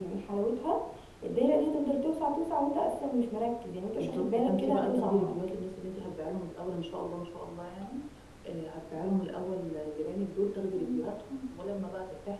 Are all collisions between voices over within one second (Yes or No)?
No